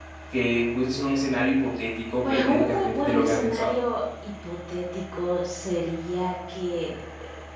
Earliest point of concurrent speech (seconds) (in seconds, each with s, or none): 2.2 s